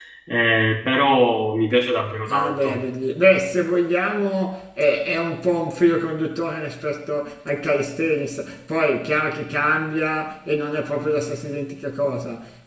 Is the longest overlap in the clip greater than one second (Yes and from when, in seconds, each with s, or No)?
No